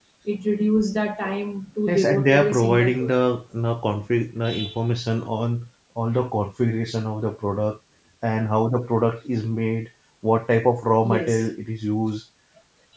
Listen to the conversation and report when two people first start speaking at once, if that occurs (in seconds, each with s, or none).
1.9 s